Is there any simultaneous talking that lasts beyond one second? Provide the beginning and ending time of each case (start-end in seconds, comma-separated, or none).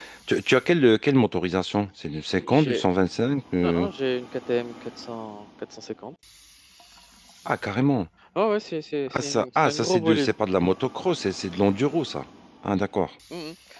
9.1-10.3